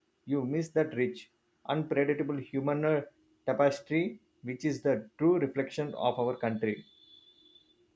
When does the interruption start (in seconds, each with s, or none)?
none